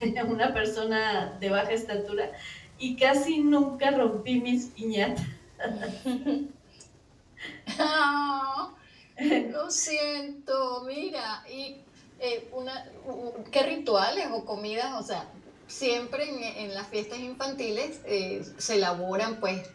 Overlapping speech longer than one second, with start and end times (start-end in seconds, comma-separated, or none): none